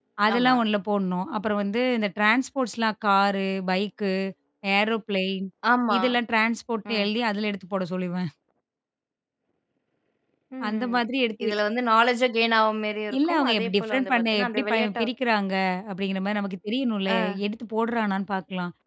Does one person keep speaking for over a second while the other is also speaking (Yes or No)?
Yes